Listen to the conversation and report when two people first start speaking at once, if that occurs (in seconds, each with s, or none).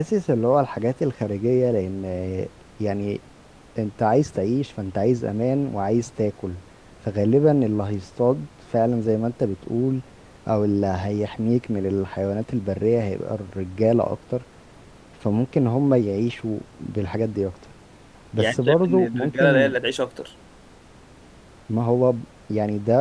18.4 s